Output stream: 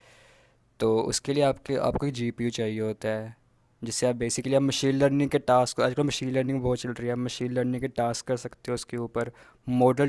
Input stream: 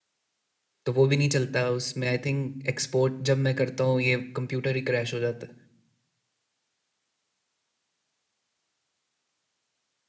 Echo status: none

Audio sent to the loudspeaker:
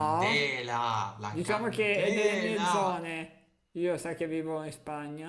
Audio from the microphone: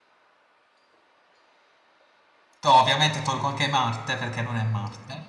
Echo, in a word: none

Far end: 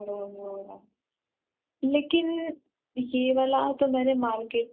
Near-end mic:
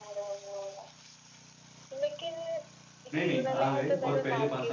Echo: present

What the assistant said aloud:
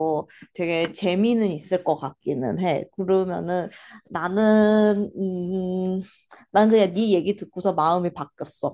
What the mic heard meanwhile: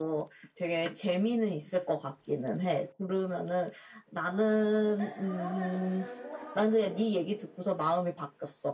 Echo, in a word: present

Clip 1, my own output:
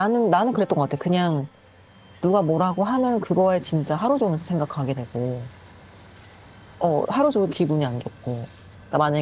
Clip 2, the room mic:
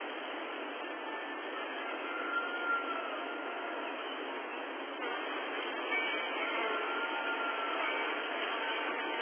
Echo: none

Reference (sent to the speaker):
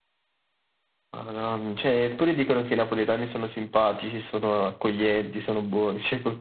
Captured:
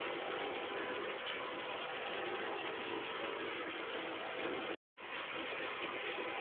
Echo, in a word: none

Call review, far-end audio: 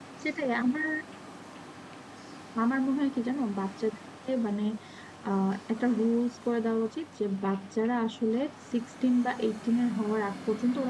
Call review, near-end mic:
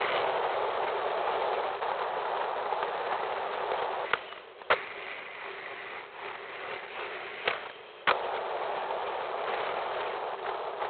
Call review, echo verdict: none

